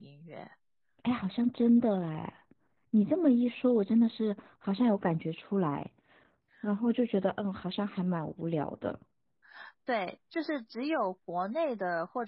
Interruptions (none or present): none